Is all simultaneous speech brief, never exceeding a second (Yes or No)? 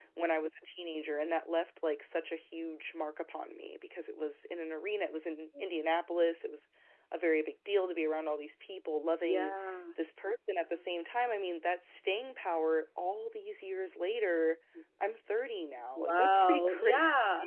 No